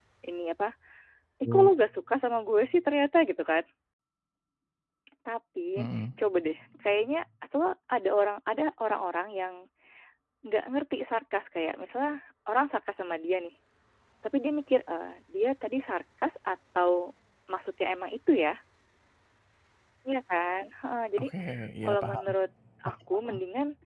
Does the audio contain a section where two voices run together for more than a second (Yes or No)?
No